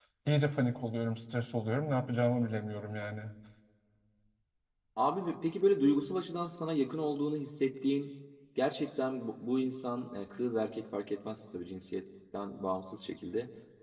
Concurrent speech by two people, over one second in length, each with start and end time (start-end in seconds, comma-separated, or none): none